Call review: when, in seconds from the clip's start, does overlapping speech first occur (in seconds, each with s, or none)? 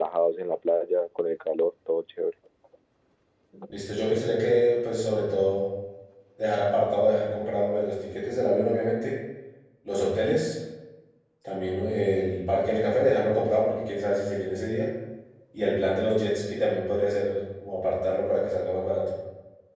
none